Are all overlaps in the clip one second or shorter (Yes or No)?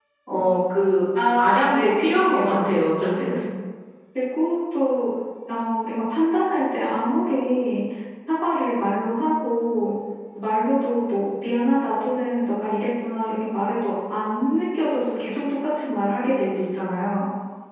No